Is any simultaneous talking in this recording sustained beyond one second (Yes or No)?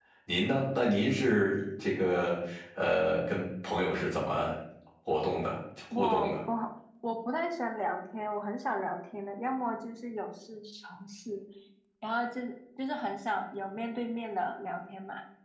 No